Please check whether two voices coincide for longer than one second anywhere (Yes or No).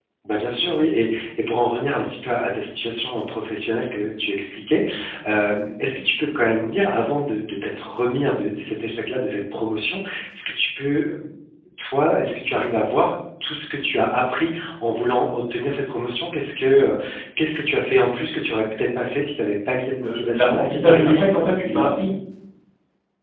Yes